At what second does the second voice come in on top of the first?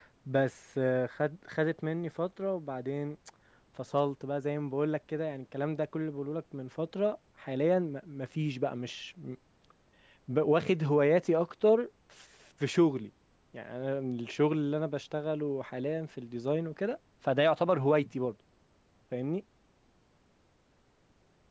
none

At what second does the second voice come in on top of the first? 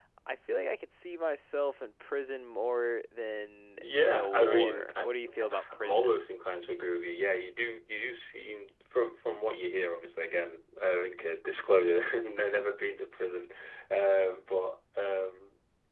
3.8 s

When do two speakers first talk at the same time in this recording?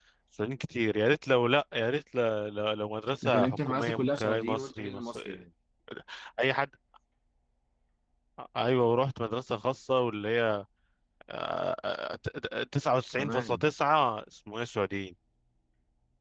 3.2 s

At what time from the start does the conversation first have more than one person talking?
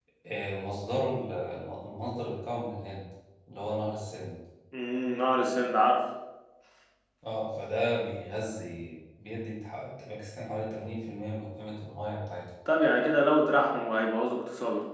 none

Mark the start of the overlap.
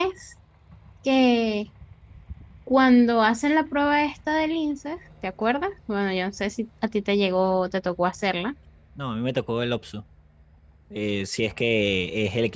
none

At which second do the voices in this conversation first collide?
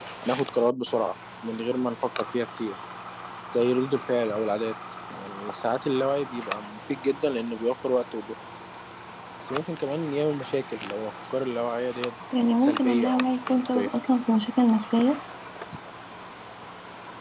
12.6 s

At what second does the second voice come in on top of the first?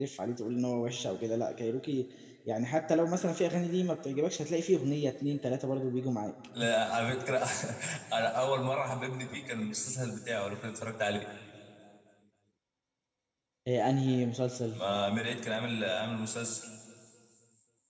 none

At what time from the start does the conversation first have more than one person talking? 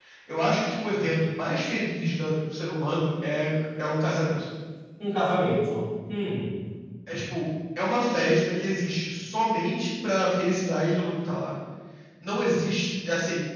none

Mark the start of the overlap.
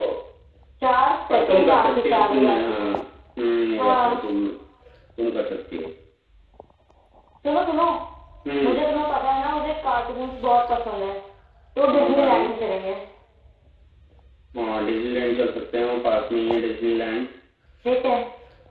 1.3 s

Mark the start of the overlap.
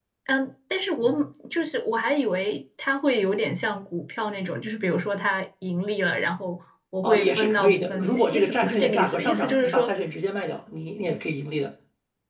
7.0 s

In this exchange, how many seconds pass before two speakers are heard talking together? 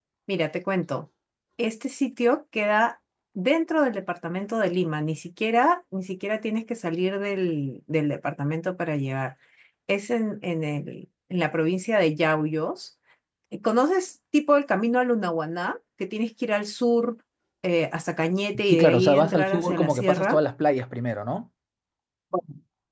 18.6 s

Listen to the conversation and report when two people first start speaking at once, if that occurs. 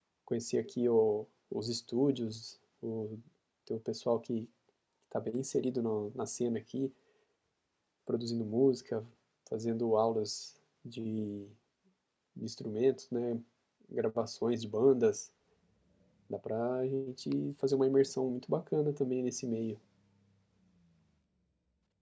none

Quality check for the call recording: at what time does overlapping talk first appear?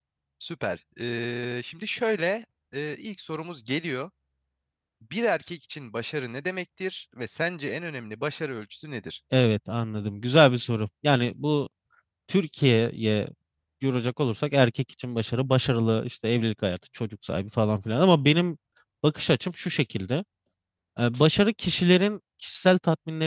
none

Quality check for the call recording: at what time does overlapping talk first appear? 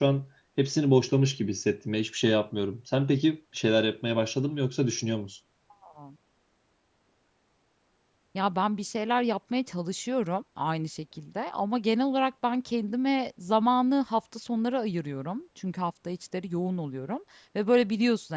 none

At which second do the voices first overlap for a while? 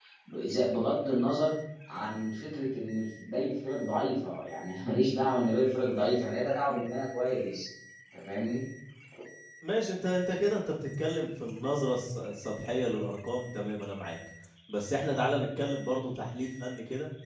none

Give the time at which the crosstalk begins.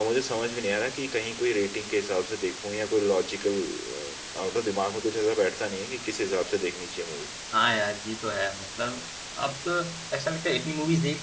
none

